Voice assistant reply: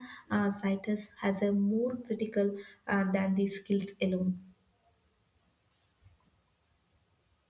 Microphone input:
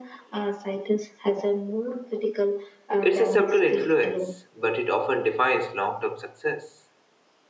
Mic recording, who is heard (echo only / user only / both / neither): both